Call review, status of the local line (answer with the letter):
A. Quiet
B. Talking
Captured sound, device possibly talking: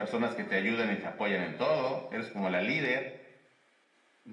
A